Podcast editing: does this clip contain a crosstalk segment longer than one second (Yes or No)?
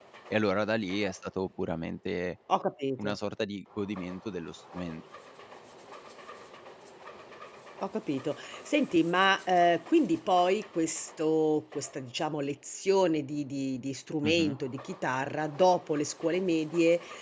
No